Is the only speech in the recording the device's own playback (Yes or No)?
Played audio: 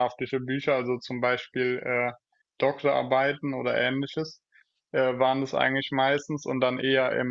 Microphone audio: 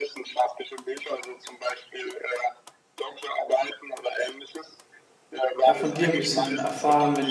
No